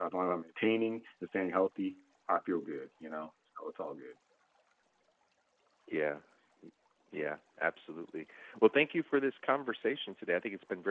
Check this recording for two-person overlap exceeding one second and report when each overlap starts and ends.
none

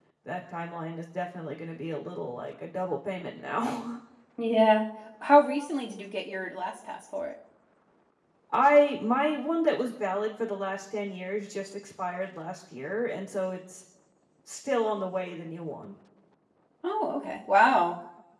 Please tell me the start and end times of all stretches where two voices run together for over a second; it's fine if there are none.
none

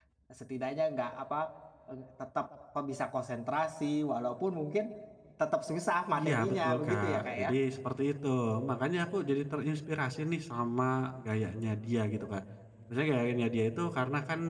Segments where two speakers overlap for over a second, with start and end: 6.1-7.5

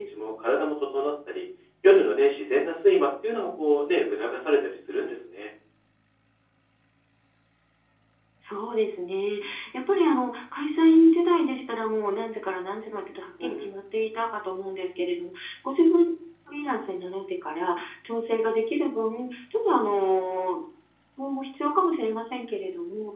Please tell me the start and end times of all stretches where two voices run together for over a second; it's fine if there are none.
none

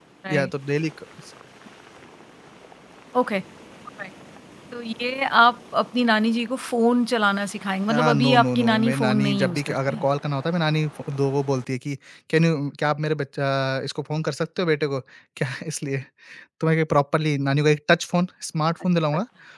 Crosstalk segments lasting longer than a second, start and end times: 7.9-10.1

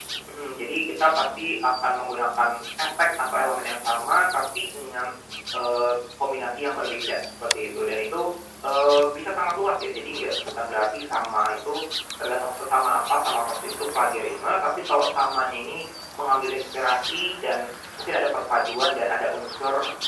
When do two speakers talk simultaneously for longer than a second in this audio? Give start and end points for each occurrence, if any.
none

